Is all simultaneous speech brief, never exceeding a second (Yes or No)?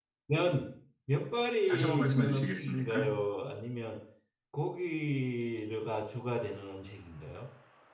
No